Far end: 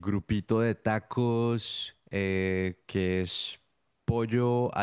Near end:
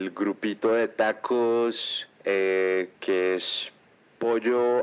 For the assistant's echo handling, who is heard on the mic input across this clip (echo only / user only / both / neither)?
echo only